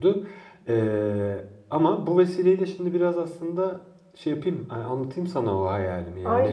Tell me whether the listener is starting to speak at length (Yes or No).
Yes